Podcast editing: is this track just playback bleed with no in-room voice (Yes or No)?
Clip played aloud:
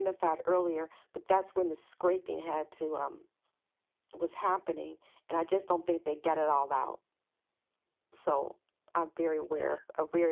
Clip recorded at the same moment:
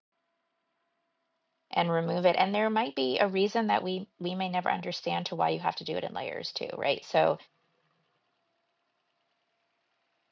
No